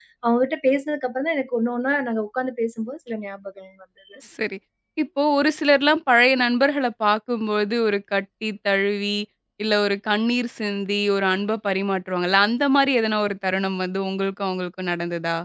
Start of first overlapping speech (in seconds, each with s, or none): none